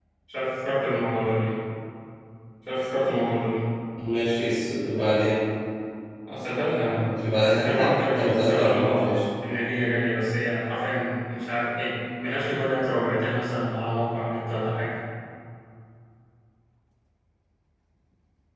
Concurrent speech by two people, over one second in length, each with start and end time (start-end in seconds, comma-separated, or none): 6.9-9.1